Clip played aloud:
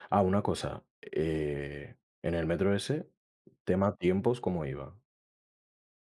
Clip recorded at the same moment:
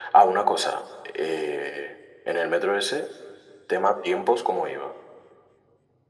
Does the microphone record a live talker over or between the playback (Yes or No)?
No